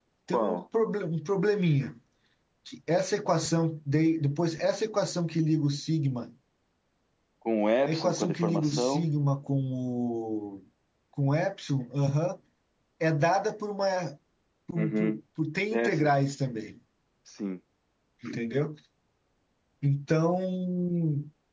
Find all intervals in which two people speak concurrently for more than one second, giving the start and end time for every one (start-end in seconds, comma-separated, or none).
7.9-9.1